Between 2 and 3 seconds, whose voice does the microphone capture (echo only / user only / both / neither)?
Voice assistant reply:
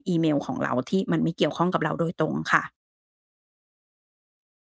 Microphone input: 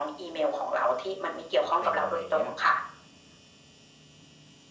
both